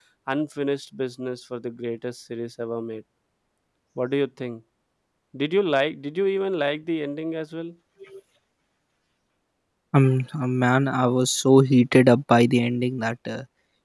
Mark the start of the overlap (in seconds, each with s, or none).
none